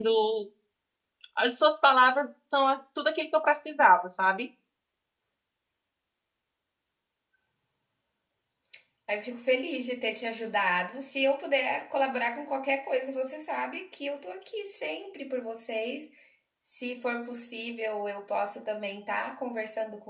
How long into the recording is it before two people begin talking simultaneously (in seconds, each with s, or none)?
none